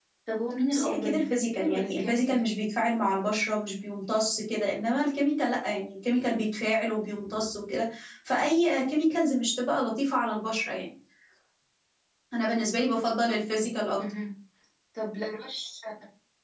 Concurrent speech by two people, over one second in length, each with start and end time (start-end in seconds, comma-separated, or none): 0.7-2.5